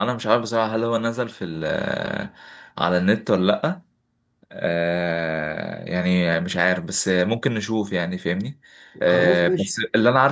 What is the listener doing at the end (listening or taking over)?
listening